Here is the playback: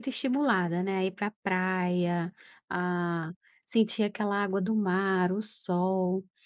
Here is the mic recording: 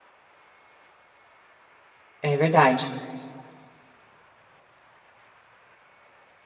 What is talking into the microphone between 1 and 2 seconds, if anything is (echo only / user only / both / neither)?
neither